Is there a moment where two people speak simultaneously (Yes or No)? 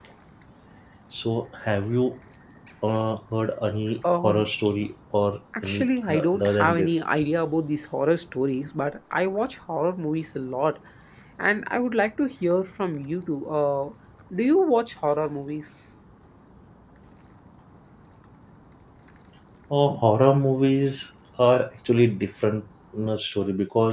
Yes